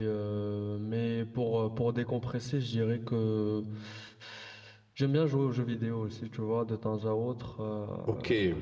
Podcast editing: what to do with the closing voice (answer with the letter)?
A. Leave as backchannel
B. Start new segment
B